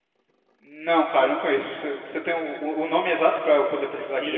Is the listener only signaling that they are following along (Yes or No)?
No